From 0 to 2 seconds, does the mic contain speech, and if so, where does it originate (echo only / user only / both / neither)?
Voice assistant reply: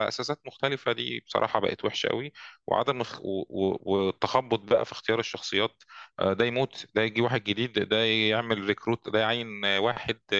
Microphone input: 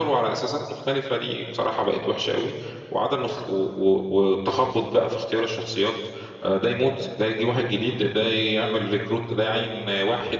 echo only